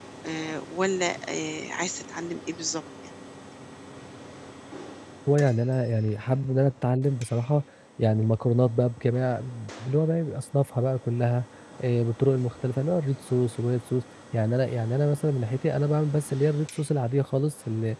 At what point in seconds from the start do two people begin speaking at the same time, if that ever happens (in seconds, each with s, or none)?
none